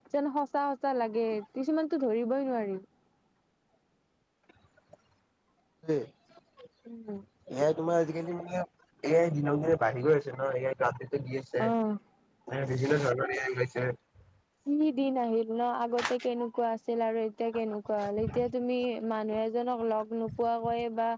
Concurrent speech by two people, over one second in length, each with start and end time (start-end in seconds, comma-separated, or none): none